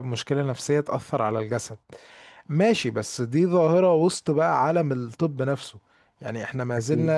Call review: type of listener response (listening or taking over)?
listening